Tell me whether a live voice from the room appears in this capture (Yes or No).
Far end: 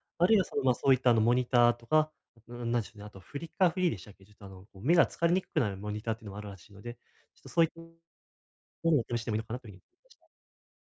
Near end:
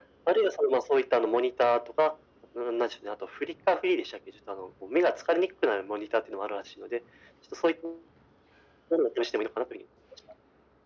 No